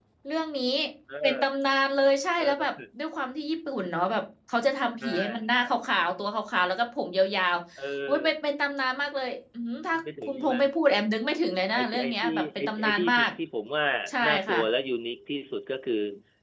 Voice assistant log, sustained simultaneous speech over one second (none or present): present